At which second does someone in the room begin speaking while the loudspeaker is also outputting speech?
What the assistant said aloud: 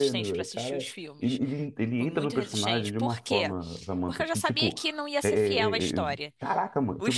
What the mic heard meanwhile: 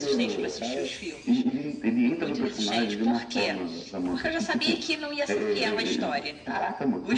none

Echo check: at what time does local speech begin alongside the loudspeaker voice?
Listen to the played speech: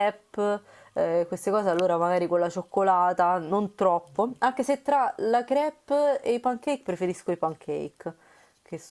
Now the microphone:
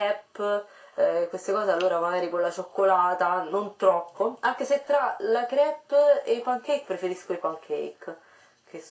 none

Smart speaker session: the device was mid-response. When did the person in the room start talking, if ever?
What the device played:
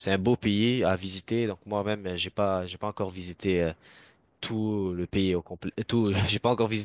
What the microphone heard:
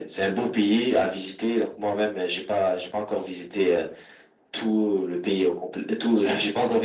none

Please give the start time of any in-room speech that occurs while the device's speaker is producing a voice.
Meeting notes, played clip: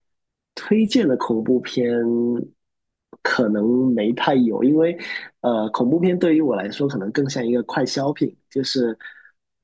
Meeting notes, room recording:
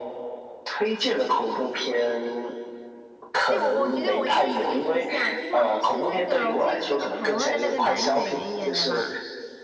3.5 s

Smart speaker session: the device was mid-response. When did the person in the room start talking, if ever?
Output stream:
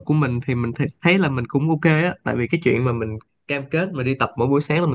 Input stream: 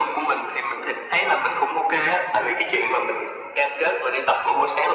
none

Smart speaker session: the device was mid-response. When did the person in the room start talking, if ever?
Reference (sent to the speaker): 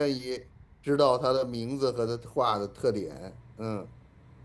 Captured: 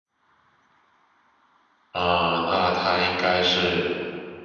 1.9 s

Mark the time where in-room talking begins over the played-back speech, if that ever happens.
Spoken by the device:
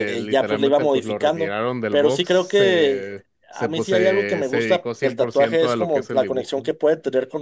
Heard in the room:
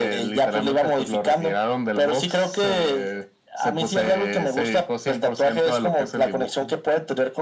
none

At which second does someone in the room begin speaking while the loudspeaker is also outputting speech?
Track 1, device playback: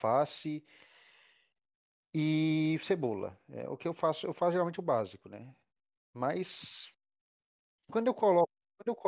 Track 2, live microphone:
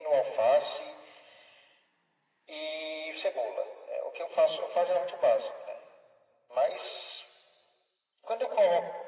none

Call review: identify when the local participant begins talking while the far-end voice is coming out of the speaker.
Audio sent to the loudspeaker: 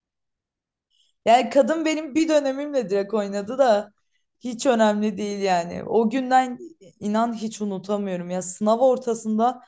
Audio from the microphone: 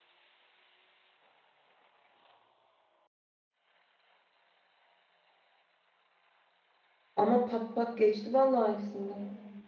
7.2 s

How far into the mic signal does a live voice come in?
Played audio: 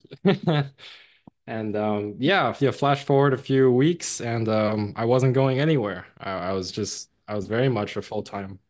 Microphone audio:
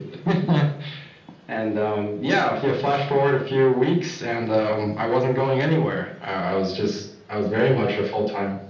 none

